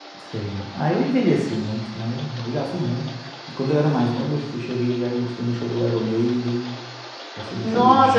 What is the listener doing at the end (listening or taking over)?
taking over